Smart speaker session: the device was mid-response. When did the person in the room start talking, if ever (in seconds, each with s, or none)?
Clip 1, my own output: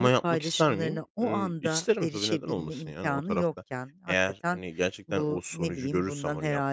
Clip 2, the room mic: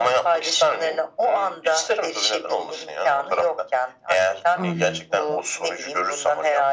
4.5 s